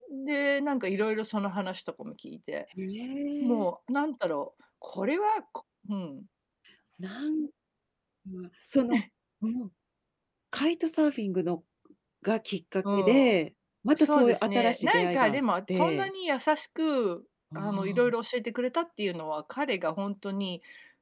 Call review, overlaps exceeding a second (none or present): present